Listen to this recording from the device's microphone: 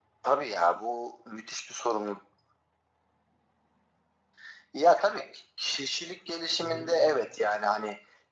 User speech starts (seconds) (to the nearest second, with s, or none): 7 s